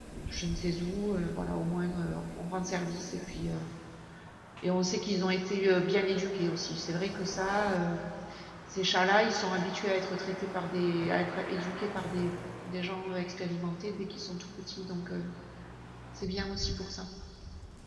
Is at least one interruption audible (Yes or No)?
No